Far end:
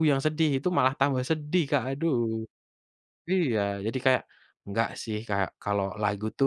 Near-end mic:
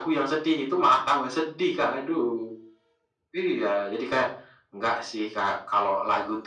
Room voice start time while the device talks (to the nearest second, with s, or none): none